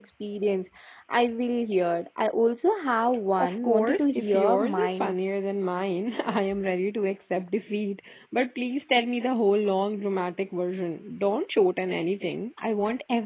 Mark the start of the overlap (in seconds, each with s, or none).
3.4 s